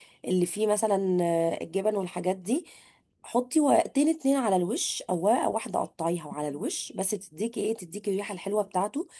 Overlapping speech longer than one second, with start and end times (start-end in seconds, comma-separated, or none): none